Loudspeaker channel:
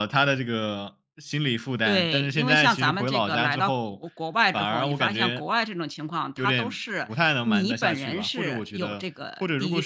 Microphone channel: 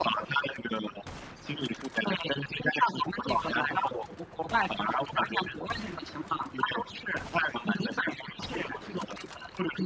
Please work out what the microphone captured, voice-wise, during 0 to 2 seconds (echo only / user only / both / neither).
echo only